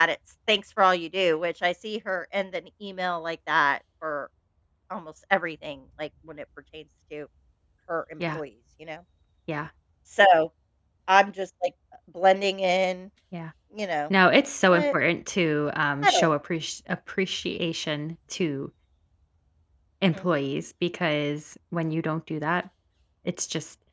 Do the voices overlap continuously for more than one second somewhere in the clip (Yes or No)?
No